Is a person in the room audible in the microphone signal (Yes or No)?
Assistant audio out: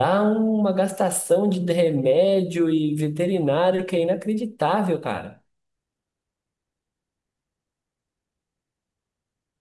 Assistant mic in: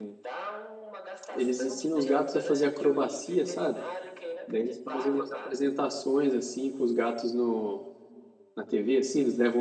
Yes